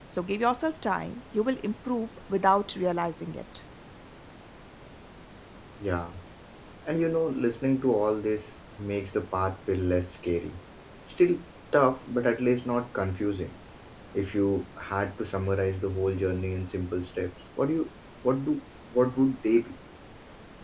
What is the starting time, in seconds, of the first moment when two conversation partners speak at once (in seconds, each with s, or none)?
none